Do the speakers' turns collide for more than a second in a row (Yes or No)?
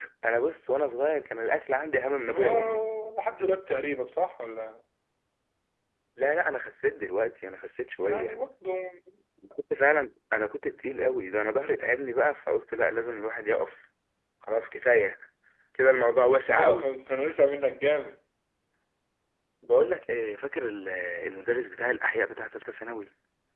No